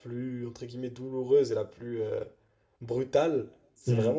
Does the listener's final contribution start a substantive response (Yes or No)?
No